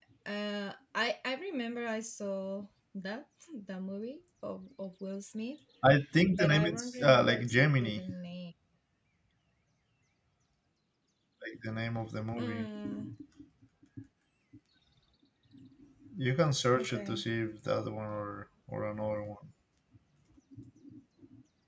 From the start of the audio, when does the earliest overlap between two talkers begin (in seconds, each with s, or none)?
6.4 s